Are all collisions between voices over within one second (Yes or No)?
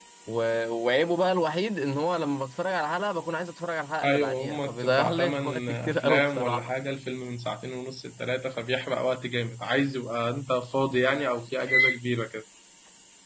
No